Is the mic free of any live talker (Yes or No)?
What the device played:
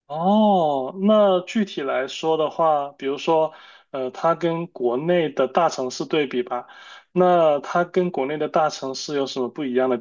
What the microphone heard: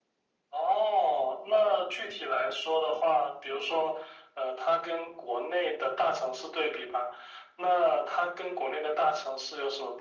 Yes